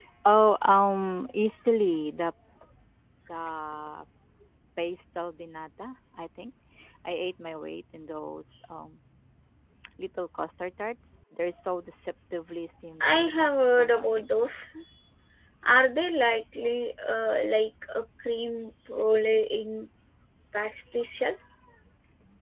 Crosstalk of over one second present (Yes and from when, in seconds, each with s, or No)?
Yes, from 13.0 s